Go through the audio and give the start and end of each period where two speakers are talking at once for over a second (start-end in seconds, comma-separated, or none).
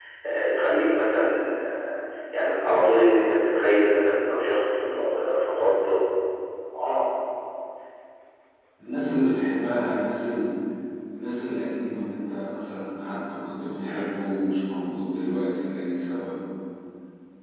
none